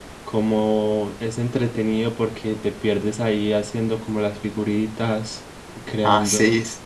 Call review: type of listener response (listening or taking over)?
taking over